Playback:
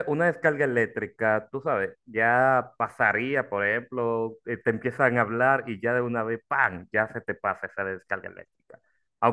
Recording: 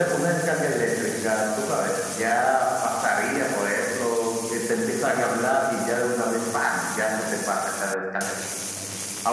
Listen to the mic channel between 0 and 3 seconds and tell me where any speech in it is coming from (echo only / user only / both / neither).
echo only